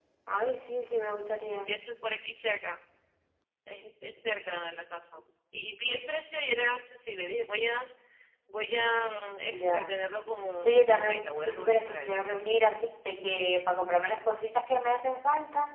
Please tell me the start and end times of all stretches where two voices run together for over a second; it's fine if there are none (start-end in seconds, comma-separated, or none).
10.6-12.2